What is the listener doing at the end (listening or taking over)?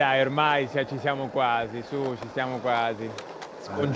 listening